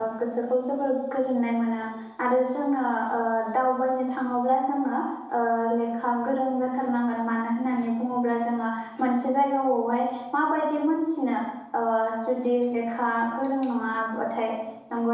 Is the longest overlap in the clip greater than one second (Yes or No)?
No